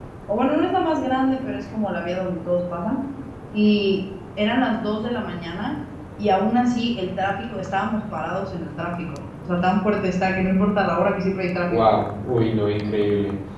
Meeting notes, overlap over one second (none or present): none